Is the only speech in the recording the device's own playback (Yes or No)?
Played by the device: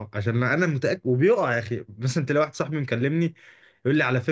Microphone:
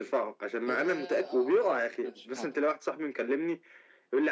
No